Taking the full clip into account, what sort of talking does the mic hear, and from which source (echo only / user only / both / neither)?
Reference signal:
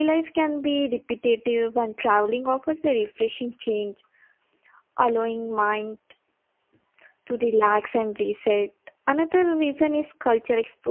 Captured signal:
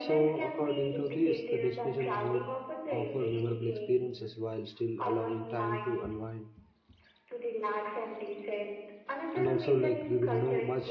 both